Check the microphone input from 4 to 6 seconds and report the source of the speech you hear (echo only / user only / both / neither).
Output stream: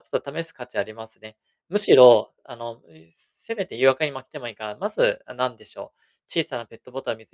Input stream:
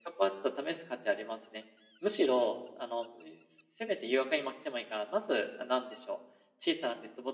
echo only